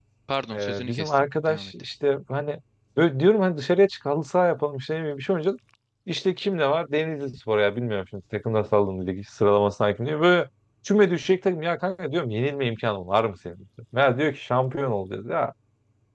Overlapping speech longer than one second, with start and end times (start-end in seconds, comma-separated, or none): 0.5-1.7